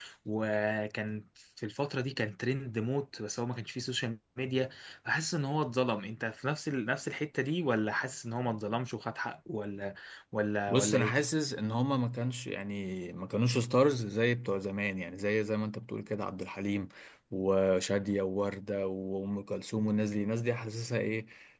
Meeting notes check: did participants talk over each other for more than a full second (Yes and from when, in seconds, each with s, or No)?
No